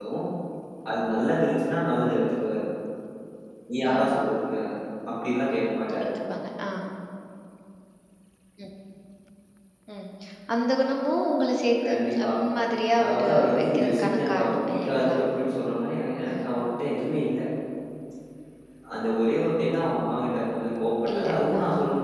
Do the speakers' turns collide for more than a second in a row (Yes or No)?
Yes